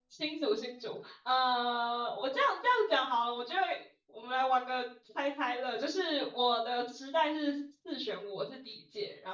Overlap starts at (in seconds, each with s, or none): none